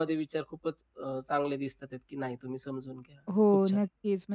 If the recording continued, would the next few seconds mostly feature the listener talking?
Yes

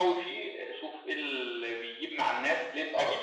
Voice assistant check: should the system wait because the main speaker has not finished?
Yes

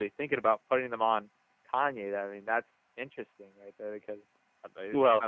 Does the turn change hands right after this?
Yes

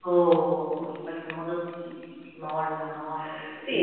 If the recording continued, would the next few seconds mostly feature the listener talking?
Yes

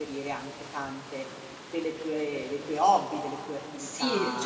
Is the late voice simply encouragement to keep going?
No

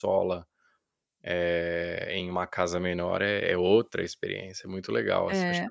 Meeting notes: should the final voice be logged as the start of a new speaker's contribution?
Yes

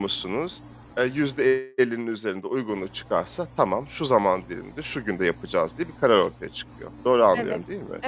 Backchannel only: No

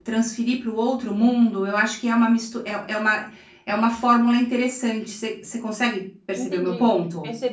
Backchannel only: No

